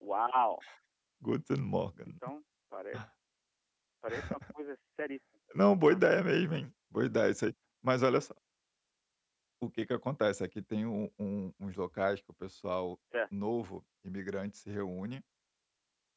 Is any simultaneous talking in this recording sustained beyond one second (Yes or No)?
No